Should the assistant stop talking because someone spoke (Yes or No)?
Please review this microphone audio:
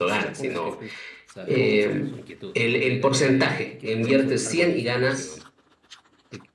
Yes